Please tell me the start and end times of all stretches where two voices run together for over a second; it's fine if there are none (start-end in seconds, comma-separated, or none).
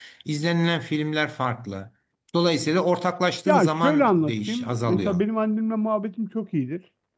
3.5-5.2